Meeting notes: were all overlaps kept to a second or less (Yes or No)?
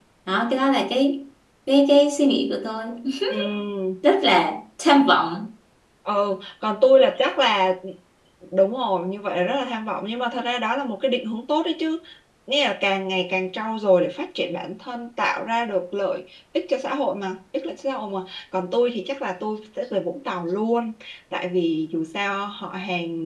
Yes